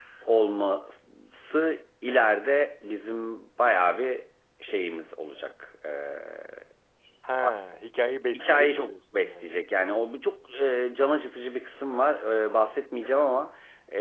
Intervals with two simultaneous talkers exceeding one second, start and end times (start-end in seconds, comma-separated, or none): 8.3-9.6